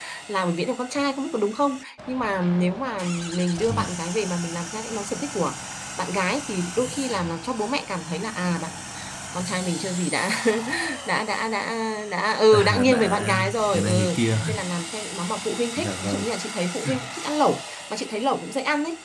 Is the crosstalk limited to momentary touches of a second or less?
No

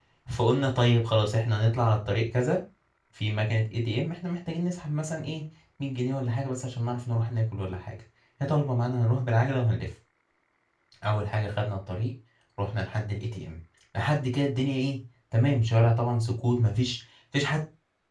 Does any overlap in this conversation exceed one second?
No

